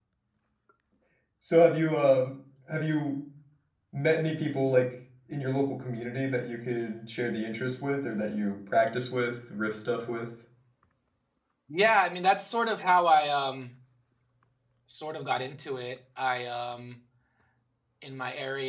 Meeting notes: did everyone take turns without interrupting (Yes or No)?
Yes